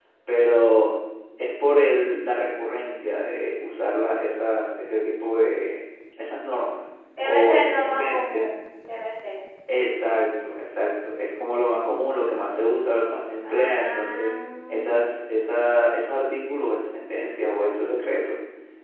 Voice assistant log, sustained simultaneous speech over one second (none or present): present